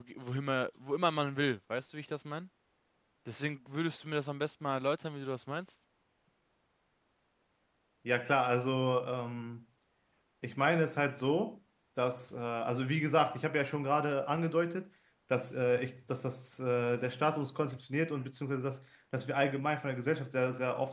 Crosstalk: none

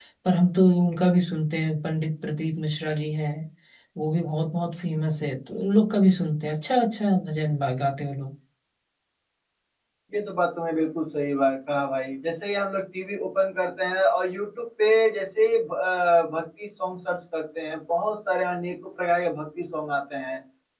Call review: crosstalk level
none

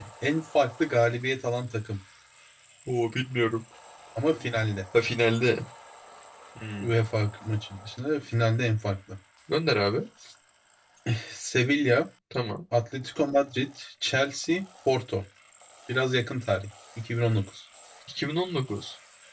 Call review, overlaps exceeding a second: none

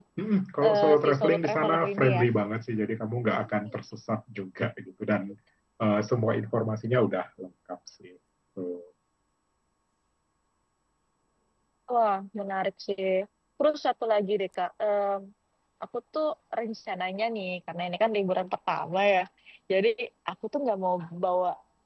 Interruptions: present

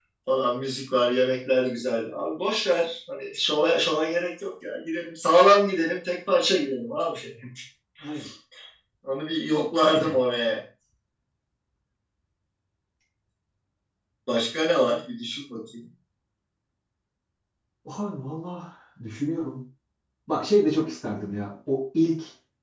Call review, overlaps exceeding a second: none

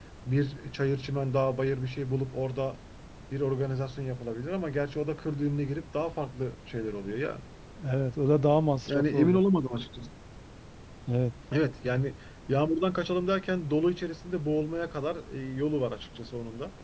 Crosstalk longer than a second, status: none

